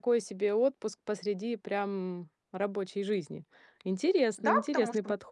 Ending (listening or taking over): taking over